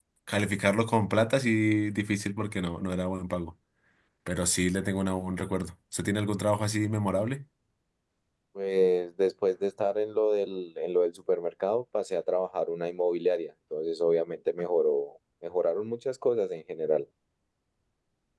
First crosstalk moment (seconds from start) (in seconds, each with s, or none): none